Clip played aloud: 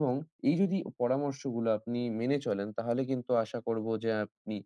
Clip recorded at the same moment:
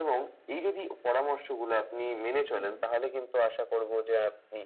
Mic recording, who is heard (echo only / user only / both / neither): both